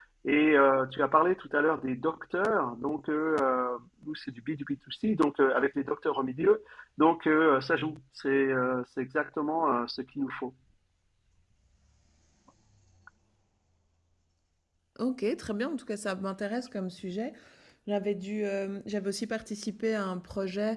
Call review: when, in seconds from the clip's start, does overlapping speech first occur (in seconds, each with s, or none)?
none